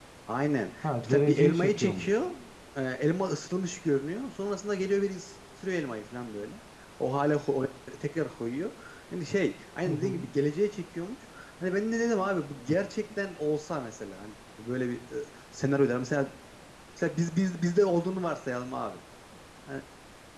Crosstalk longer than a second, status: present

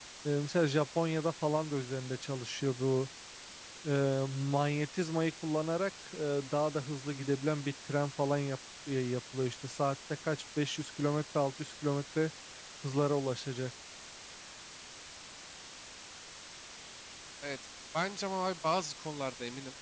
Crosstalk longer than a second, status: none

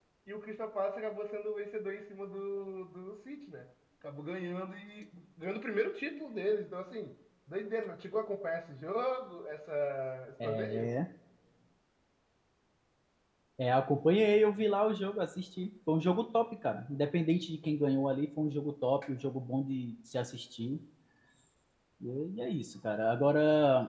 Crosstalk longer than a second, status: none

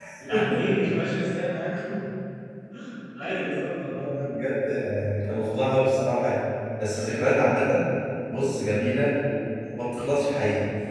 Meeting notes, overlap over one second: none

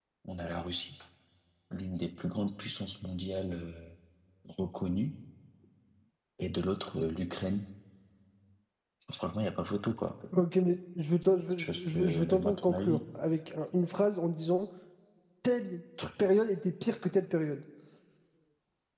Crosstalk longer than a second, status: present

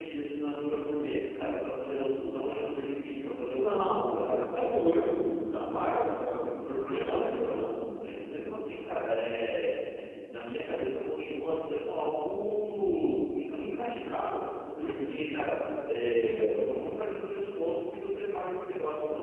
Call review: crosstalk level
present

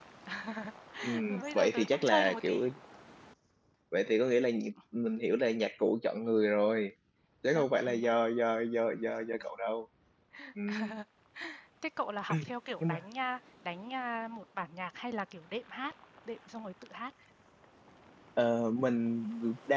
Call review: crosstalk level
present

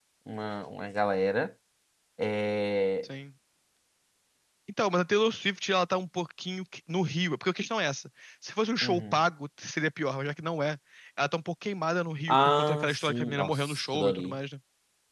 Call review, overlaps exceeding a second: present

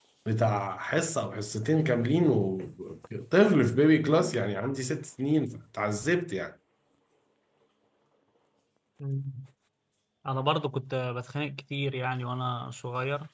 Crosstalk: none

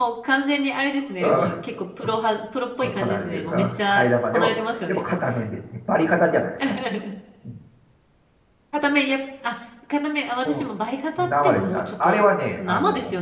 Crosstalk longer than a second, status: present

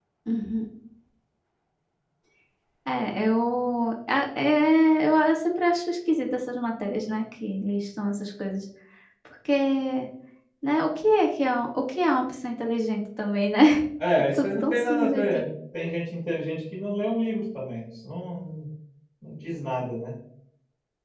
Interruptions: present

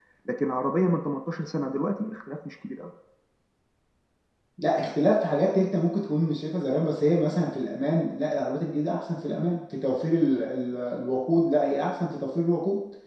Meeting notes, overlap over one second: none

